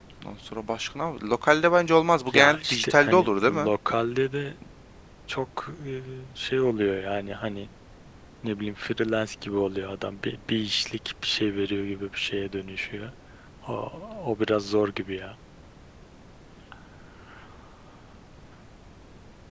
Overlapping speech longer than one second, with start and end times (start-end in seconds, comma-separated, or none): 2.3-3.7